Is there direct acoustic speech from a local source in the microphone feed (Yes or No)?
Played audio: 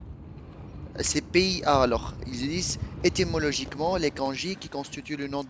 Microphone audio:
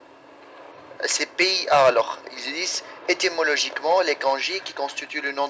No